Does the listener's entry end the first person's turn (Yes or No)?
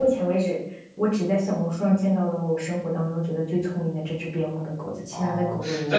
Yes